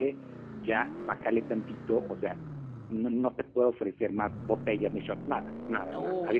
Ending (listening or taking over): taking over